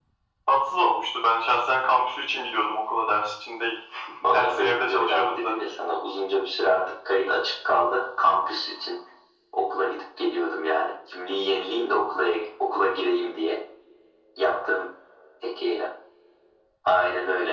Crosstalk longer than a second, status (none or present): present